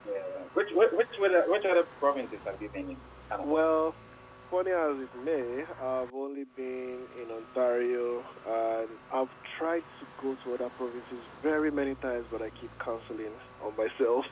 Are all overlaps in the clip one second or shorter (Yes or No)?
Yes